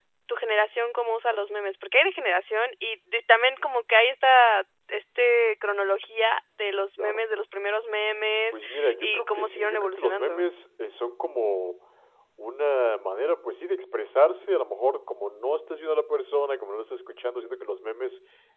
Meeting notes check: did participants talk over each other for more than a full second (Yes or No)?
Yes